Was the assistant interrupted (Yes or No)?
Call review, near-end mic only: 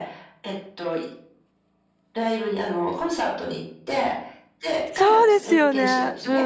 Yes